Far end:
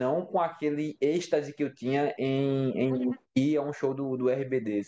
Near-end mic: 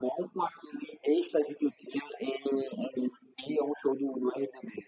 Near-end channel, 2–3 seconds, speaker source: echo only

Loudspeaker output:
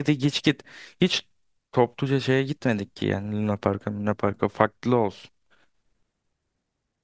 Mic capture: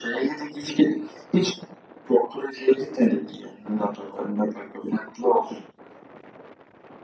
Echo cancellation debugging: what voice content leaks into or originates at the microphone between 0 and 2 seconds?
echo only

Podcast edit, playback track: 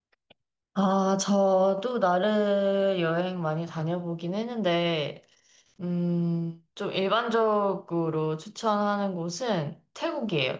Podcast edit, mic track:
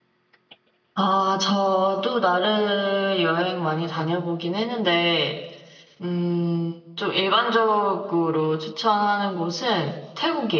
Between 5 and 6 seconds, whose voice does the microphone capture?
echo only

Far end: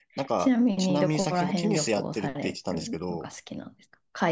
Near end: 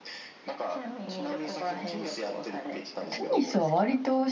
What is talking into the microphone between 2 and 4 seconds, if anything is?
both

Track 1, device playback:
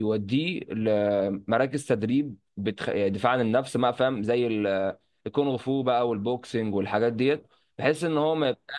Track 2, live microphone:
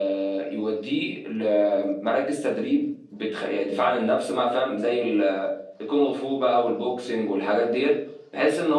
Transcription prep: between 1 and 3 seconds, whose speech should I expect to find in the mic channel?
echo only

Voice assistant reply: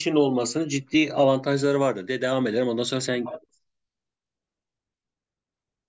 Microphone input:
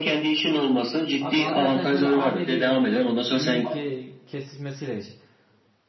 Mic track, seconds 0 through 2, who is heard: both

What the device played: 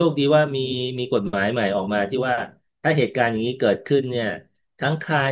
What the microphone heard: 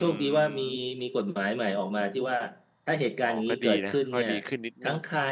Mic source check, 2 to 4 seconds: both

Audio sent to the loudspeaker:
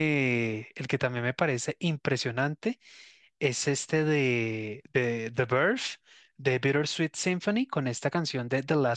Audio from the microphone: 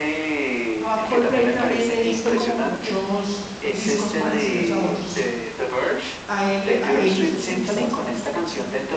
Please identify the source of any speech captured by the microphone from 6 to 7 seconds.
both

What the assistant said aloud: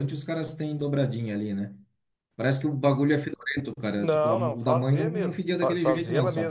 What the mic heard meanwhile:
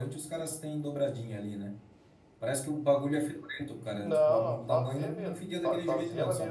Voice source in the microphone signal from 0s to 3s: echo only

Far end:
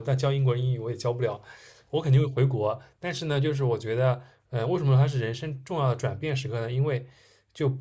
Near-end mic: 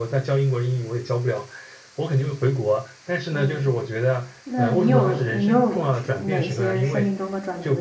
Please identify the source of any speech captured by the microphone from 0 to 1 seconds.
echo only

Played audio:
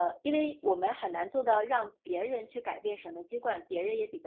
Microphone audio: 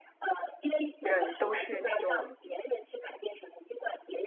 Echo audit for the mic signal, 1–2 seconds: both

